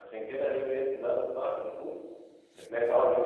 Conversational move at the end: listening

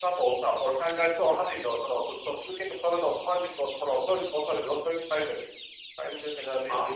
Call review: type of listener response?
taking over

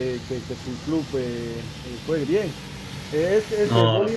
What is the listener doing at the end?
listening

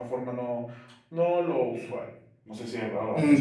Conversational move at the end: taking over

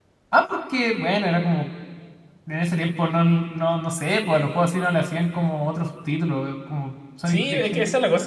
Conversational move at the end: taking over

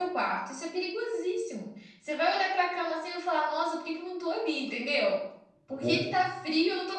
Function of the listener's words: listening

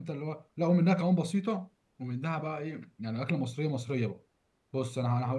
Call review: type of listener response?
listening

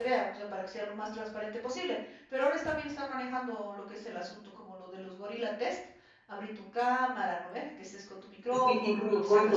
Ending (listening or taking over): taking over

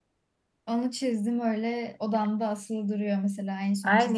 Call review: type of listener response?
taking over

